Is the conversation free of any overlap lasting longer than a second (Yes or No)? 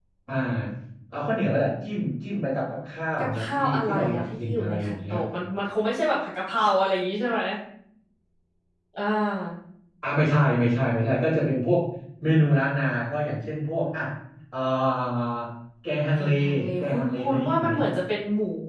No